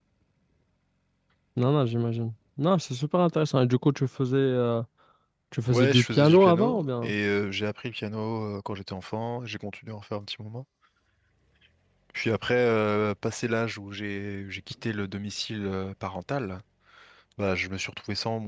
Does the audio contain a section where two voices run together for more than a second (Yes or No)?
Yes